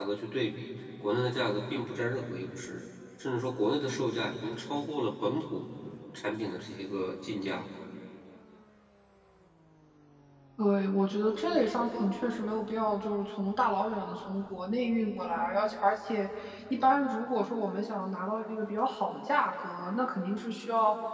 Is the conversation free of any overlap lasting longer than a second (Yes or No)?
Yes